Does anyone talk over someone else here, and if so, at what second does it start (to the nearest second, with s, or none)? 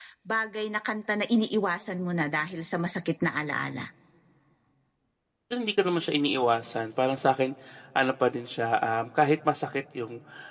none